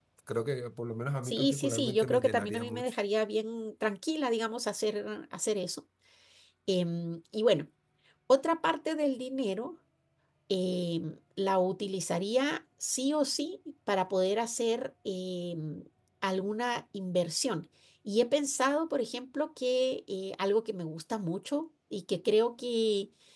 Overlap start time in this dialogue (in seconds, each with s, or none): 1.2 s